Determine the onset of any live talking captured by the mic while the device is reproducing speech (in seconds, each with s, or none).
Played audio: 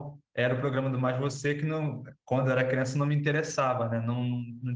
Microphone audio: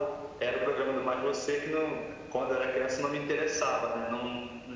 none